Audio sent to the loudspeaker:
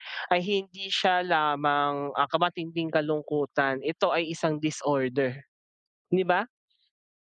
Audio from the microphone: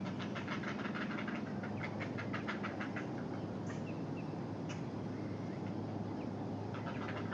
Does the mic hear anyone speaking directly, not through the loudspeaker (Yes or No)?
No